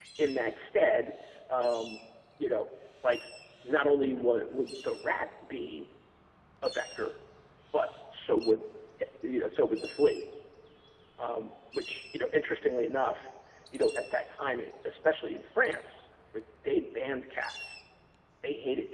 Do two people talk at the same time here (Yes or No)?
No